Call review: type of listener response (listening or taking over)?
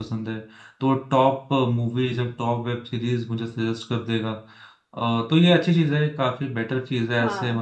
listening